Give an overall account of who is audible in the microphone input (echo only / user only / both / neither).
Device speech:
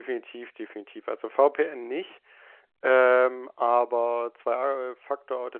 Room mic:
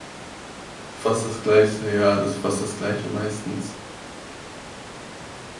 user only